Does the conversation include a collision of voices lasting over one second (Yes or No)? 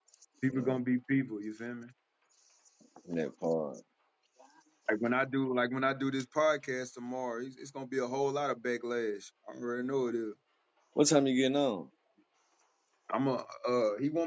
No